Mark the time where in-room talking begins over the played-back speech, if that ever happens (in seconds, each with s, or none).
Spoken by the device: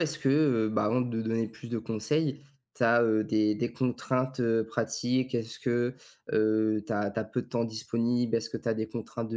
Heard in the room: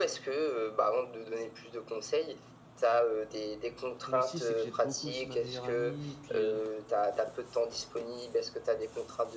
4.1 s